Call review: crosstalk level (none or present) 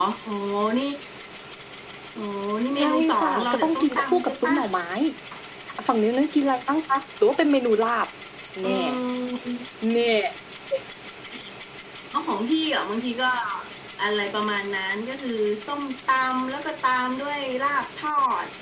present